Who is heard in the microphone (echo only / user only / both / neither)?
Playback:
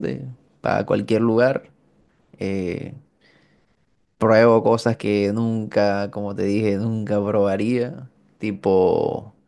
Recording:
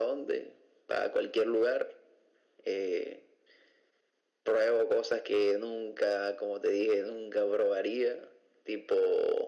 echo only